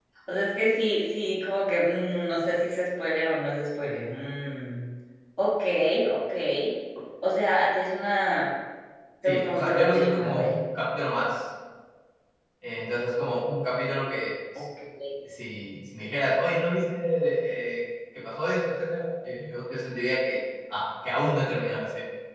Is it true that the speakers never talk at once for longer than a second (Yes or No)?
No